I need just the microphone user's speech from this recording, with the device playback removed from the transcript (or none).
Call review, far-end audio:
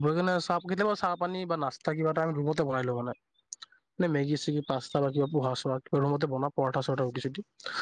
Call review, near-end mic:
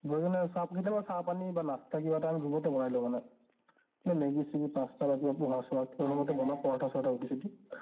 আহি কেনে